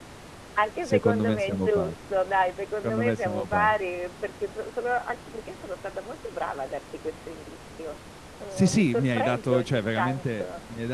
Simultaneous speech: Yes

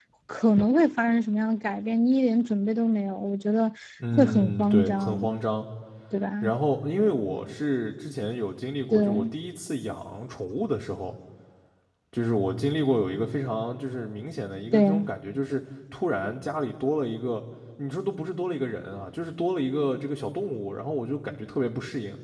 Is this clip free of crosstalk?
No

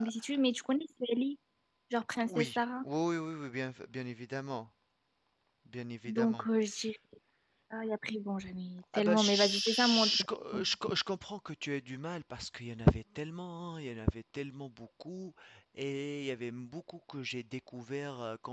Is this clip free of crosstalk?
No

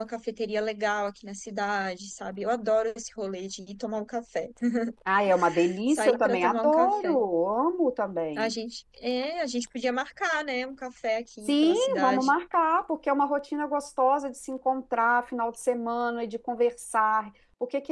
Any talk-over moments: Yes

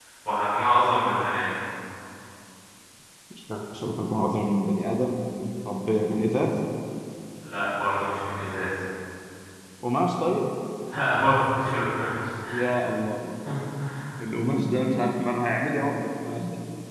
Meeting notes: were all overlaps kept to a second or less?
Yes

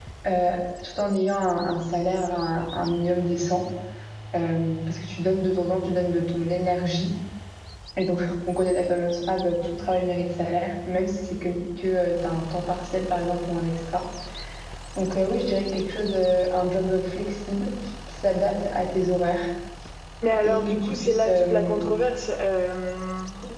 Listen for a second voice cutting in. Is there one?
Yes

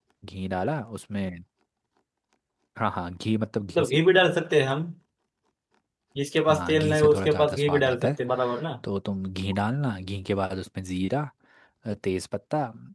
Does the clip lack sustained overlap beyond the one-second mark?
No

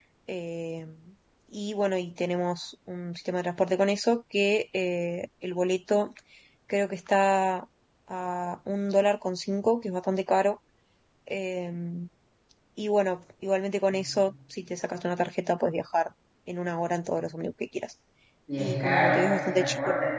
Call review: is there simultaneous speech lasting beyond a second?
Yes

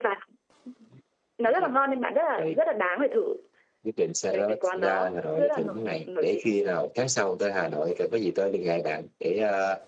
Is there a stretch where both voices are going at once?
Yes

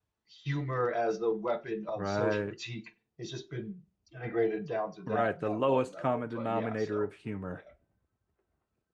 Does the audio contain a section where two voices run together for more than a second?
Yes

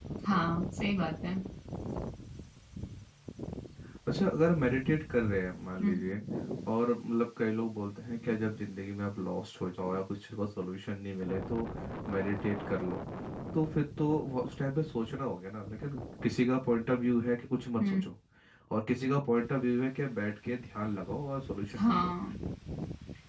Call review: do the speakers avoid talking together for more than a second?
Yes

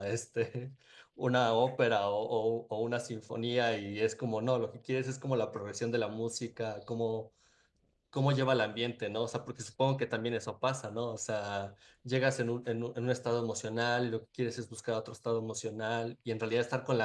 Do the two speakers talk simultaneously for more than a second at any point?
No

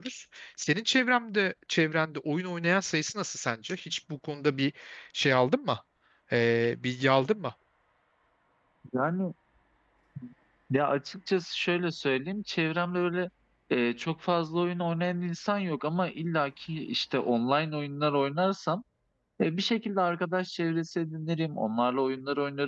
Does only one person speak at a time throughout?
Yes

